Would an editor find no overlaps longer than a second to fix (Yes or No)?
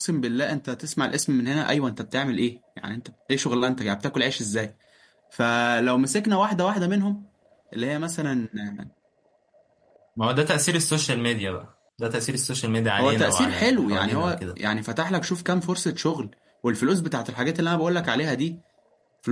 No